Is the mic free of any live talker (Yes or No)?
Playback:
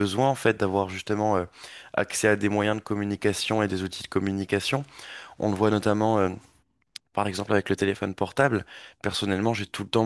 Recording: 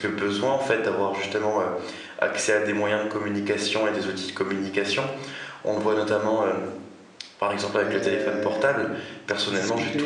No